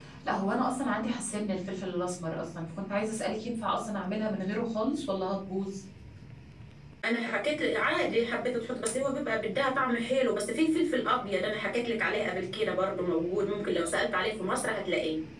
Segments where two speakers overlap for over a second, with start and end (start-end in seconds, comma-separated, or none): none